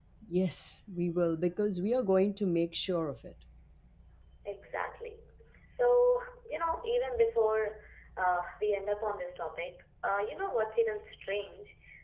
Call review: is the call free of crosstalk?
Yes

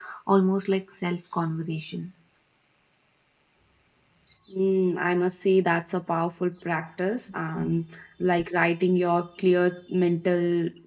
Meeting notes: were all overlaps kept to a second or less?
Yes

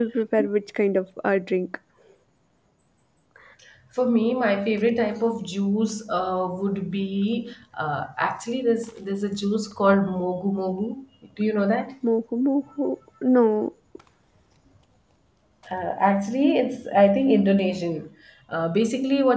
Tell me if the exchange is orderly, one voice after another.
Yes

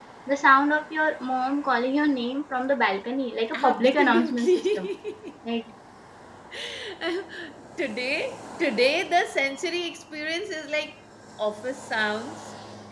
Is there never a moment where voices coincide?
No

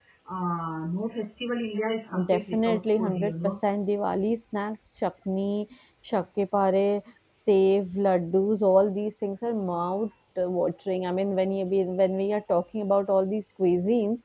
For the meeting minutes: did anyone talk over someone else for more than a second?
Yes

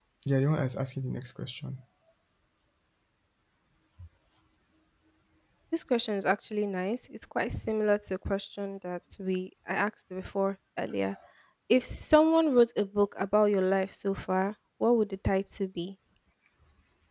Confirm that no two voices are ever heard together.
Yes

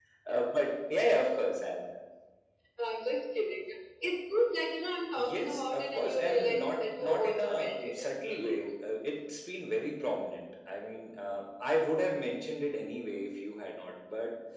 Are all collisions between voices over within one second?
No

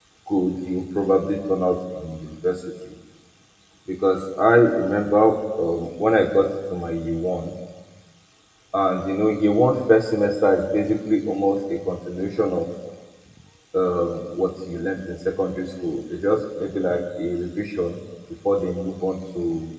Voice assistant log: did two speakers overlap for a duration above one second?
No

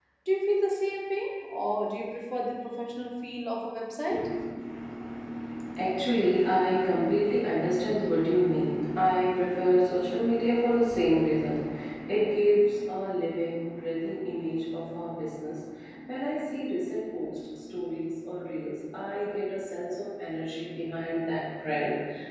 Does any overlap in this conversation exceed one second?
No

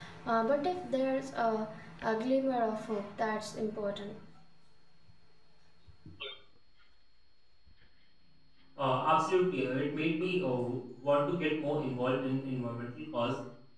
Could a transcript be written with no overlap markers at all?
Yes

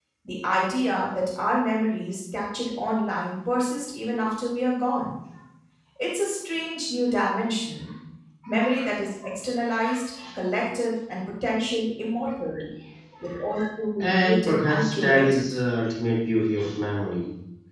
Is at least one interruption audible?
Yes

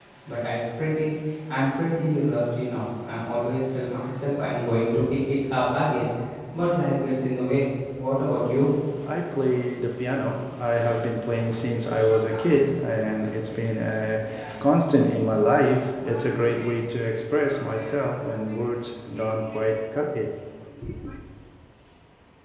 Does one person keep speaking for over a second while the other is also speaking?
No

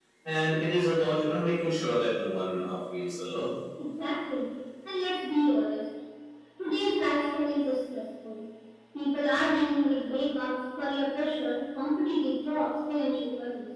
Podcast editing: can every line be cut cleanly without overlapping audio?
Yes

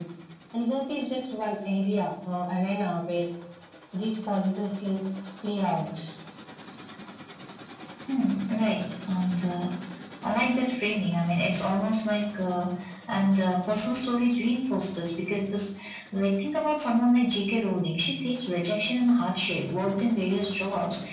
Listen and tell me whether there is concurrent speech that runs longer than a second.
No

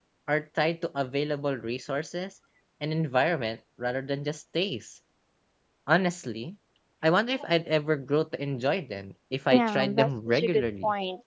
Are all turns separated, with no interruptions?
No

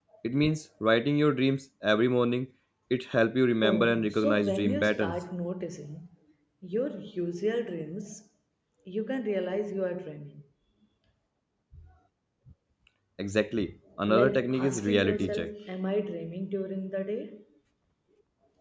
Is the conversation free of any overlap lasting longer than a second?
No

